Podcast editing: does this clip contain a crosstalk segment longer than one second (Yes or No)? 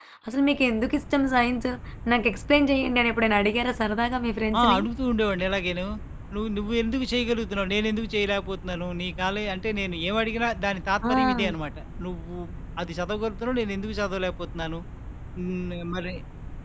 No